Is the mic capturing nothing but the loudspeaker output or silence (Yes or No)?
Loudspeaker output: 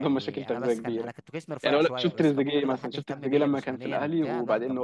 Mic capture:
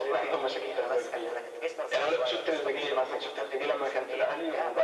Yes